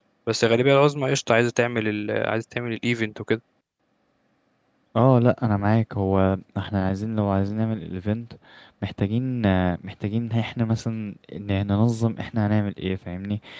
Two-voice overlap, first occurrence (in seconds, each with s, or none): none